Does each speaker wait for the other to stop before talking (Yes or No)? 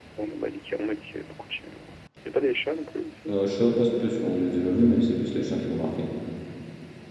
Yes